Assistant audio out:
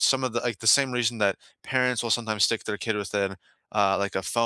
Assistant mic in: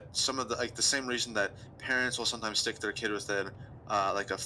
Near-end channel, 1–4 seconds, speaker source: echo only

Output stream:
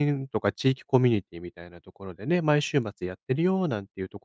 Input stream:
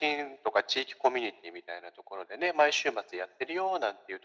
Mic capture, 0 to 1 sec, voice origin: echo only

